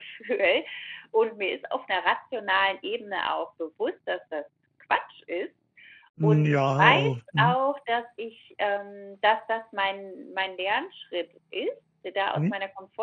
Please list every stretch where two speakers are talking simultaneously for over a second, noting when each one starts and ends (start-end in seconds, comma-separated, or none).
6.2-7.5